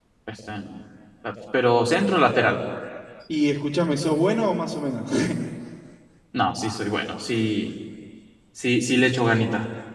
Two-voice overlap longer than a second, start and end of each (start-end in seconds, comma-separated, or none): none